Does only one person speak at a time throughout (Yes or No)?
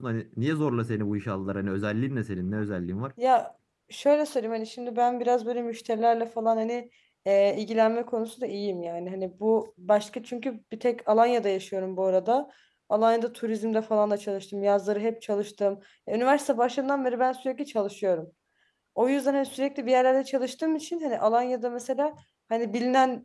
Yes